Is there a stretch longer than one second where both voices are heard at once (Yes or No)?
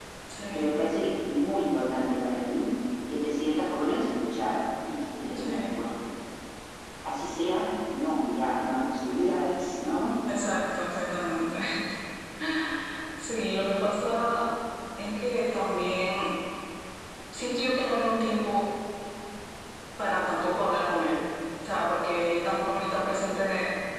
No